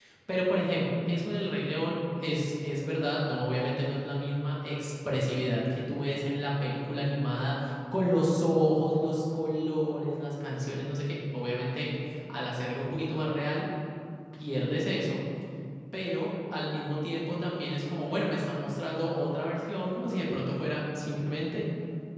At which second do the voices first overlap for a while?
none

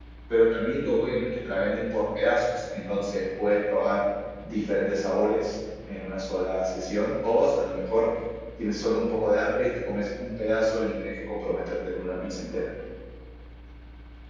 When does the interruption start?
none

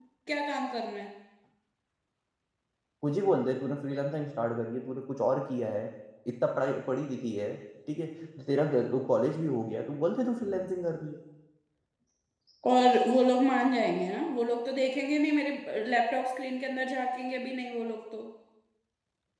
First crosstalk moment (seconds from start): none

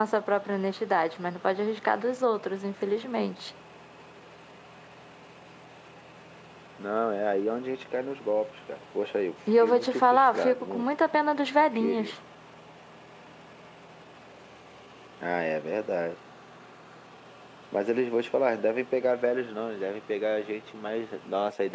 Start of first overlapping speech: 10 s

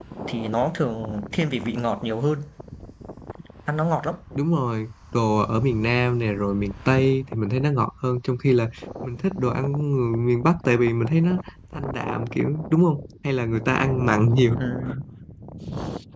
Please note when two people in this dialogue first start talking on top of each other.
none

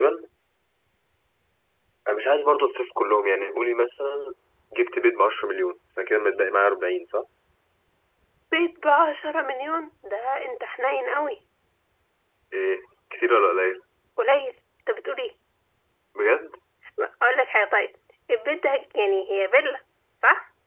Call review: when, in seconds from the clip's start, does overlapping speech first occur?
none

